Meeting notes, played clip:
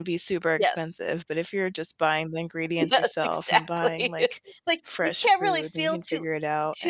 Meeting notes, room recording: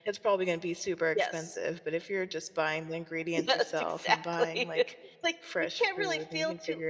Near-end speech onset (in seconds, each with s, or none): none